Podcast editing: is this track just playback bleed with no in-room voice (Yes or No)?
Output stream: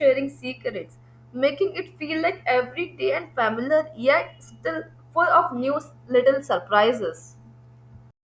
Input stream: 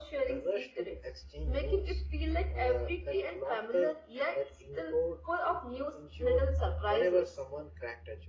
No